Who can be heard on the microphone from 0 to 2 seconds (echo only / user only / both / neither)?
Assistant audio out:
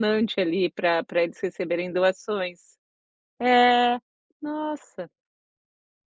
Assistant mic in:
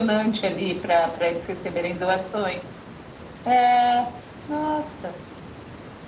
echo only